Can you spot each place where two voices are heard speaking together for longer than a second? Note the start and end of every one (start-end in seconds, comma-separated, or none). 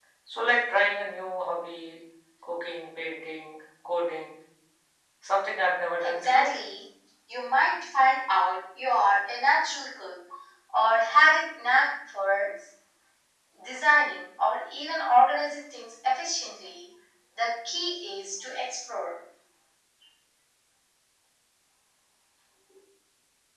none